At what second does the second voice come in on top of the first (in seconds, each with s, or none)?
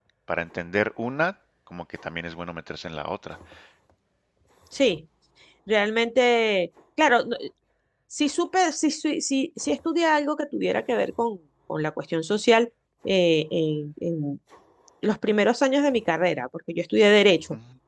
none